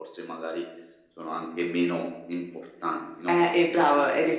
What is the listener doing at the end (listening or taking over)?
taking over